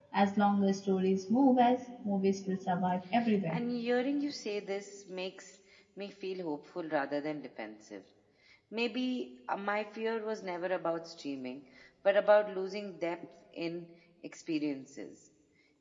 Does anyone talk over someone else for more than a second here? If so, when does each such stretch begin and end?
none

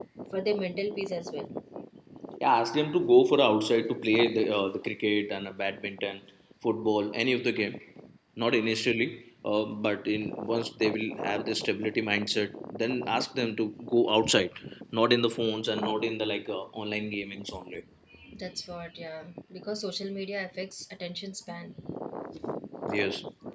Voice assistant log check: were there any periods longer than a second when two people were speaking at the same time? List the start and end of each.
none

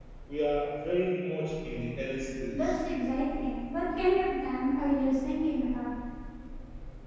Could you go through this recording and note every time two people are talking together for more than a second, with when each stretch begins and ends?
none

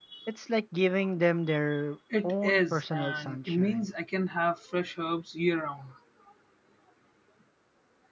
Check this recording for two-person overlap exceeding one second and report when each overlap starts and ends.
2.2-3.9

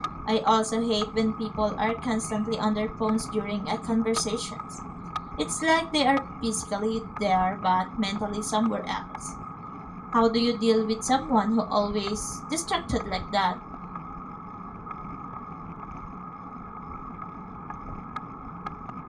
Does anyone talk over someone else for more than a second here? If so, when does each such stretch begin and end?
none

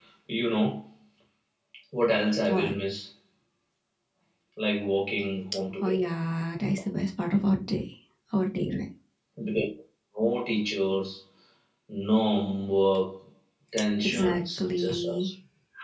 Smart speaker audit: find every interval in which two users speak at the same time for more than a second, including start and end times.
14.0-15.3

